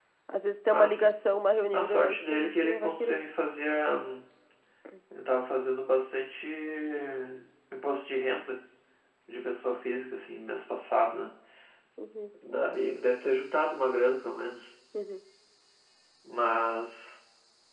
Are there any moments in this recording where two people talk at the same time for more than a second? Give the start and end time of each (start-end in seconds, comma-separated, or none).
1.7-3.2